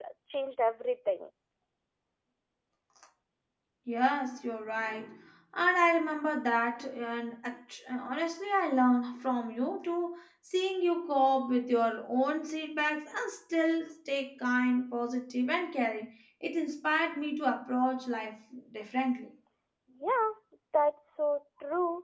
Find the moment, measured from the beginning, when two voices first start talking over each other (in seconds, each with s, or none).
none